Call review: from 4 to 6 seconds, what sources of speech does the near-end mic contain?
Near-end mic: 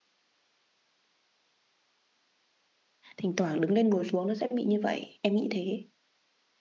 user only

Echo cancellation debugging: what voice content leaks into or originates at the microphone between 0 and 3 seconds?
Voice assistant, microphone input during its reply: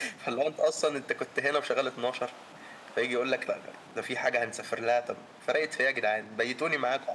echo only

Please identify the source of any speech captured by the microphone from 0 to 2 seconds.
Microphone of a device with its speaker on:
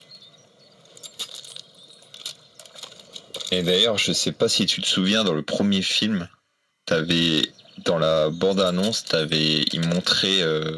neither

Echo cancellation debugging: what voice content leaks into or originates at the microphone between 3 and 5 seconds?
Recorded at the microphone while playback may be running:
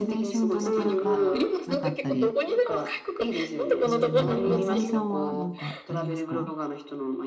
both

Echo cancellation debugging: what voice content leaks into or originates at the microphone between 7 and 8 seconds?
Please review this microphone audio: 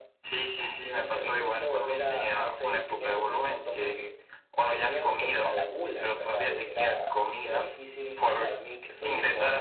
echo only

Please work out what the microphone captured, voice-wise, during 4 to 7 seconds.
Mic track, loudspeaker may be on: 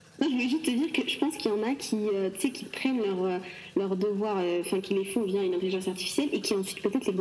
echo only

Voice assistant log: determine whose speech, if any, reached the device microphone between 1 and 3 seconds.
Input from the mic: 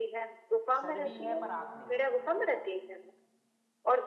both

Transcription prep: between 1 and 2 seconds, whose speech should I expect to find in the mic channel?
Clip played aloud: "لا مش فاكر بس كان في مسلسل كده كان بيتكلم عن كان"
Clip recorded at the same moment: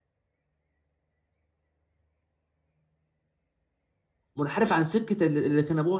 neither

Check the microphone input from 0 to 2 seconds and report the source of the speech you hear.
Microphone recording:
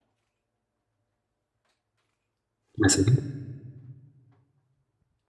neither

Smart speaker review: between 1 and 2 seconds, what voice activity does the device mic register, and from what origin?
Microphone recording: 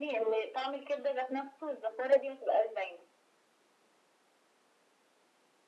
echo only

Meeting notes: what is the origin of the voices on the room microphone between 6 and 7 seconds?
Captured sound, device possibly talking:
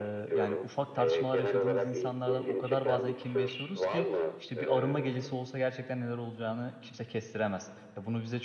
user only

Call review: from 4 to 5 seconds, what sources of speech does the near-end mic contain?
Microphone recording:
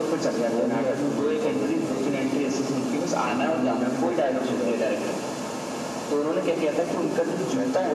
echo only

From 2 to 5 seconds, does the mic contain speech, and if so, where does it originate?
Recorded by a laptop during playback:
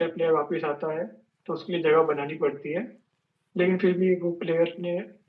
user only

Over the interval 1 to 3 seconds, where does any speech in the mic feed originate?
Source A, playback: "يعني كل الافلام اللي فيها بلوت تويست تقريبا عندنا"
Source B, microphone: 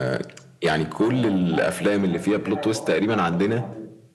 both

